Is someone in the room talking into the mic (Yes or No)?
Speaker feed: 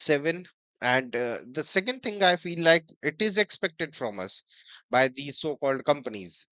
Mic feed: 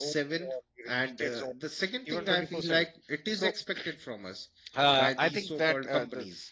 Yes